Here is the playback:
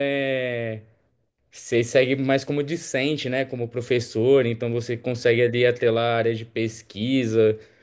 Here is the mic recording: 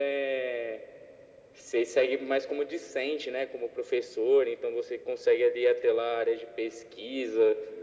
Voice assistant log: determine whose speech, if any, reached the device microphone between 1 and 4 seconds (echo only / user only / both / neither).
echo only